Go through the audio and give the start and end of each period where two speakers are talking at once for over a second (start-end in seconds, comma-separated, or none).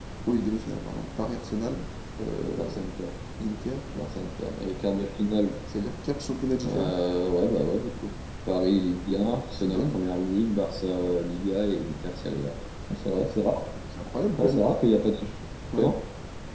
none